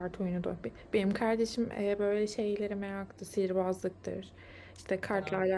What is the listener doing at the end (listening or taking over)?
listening